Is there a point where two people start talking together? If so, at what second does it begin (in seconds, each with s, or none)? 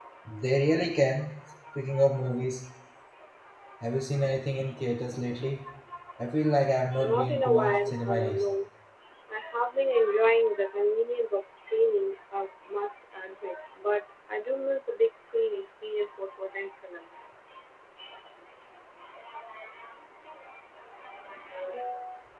7.0 s